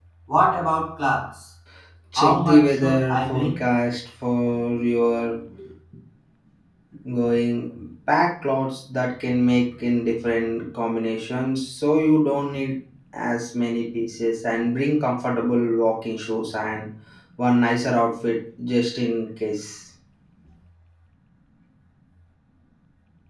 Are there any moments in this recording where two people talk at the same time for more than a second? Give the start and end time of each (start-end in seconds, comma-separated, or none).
2.2-3.6